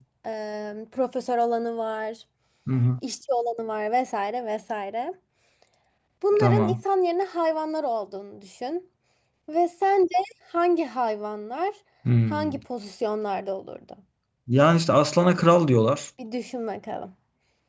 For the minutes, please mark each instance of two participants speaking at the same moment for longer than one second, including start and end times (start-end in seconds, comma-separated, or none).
none